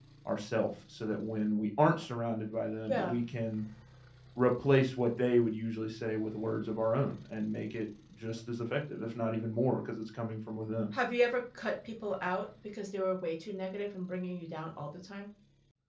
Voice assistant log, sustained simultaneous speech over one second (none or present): none